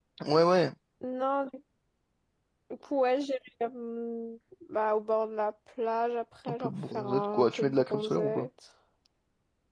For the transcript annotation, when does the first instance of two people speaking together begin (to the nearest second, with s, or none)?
6 s